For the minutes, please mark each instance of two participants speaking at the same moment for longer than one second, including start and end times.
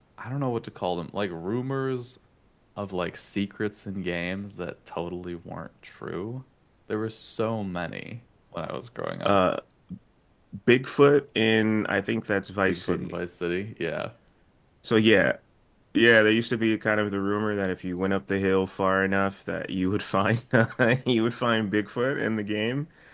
none

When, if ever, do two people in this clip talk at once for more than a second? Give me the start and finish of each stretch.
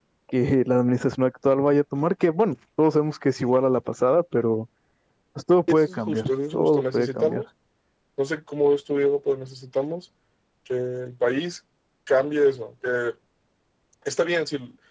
5.7-7.4

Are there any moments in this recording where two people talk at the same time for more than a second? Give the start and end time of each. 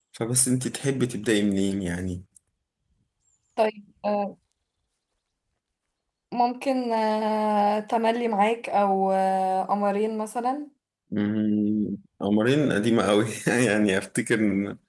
none

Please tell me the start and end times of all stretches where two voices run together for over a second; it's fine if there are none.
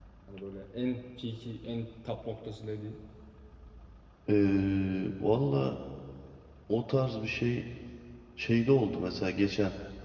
none

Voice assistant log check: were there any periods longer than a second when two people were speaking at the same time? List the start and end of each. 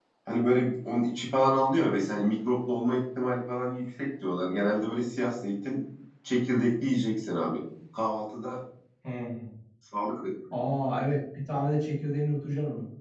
none

